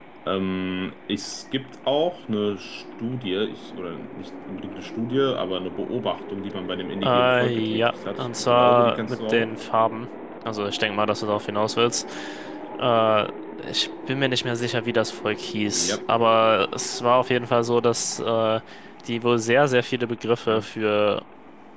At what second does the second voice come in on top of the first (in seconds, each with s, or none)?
7.0 s